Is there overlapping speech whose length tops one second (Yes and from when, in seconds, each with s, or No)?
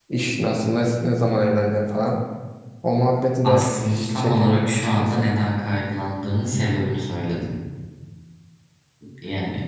Yes, from 3.4 s